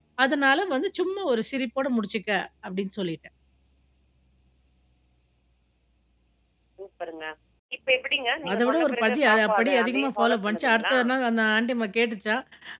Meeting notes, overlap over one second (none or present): present